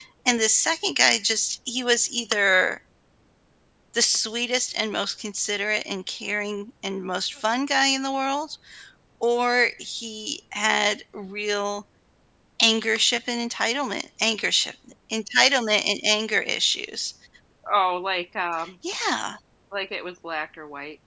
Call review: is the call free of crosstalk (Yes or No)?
Yes